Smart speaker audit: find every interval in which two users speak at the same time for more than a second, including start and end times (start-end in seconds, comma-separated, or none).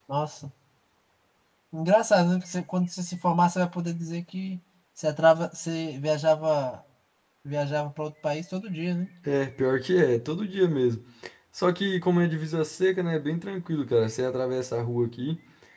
none